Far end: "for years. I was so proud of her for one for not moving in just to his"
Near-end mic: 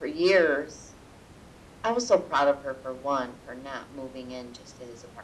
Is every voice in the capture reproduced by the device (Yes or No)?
Yes